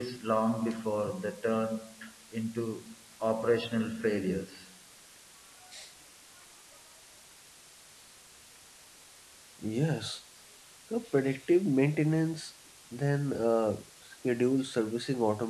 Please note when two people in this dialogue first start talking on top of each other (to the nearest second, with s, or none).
none